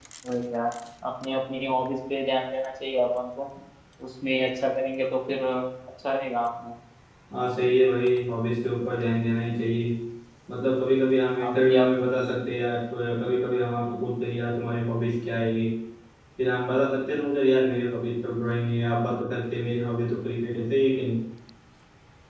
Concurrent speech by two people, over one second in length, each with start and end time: none

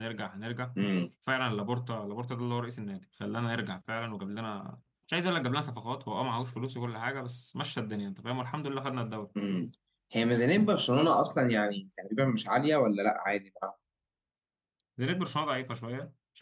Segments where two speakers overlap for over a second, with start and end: none

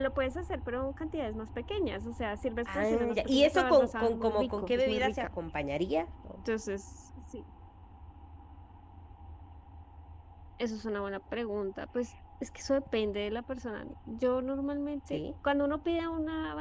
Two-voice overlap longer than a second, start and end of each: 2.6-5.3

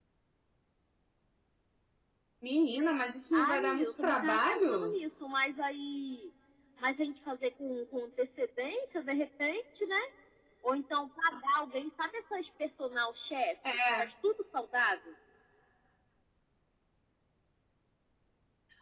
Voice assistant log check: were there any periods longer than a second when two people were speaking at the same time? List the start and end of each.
3.3-4.9

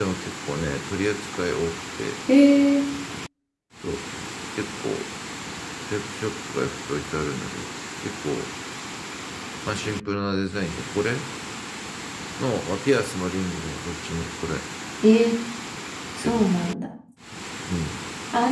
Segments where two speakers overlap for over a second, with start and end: none

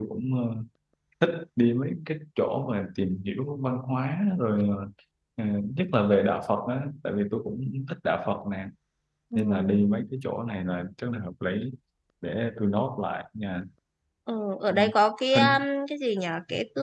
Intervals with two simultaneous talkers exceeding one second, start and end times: none

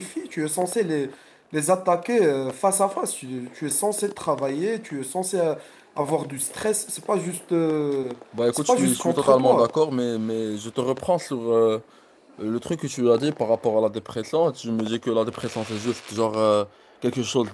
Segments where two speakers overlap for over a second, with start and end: 8.5-9.7

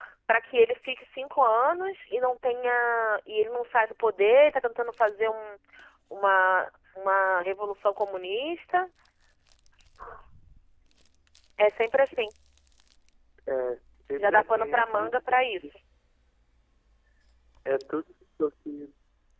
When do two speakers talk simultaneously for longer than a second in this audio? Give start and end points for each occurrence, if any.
14.2-15.4

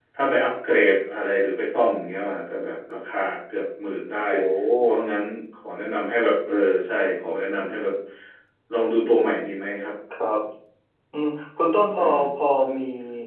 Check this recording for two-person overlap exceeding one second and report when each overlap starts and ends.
none

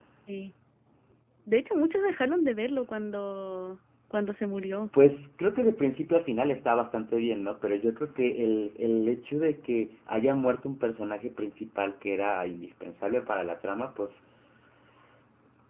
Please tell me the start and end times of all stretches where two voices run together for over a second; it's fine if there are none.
none

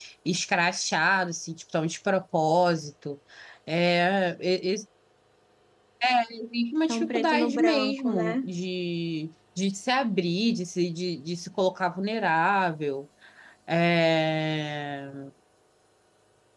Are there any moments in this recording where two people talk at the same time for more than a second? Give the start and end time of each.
6.9-8.4

